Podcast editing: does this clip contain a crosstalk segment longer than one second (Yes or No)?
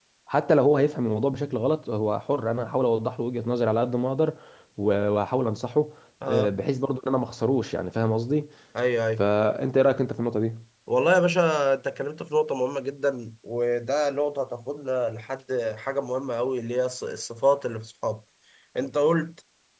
No